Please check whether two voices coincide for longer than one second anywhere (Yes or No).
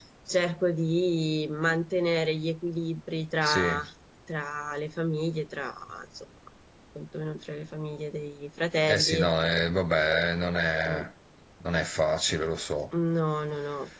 No